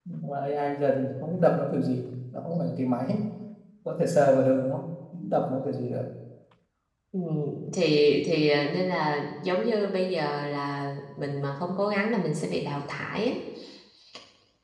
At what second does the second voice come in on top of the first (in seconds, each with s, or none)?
none